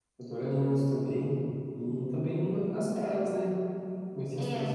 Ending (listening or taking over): listening